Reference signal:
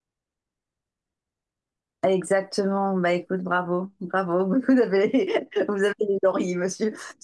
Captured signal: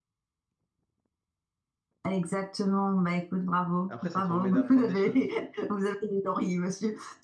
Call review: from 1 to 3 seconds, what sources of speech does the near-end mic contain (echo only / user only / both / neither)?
echo only